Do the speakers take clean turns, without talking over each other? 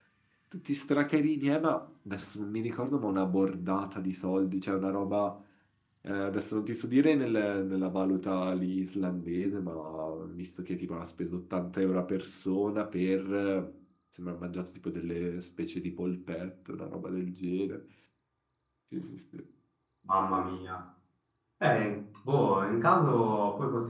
Yes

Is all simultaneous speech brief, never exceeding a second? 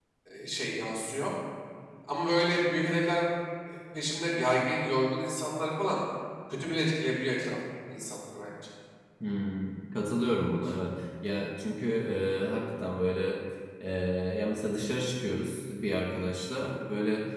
Yes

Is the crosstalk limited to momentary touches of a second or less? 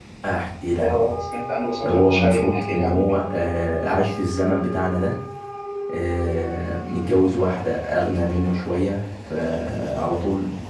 No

